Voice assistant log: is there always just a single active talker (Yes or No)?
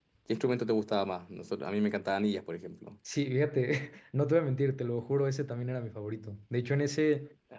Yes